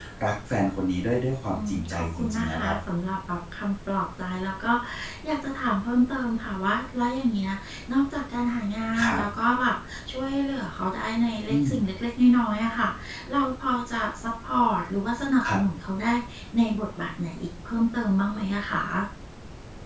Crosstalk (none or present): present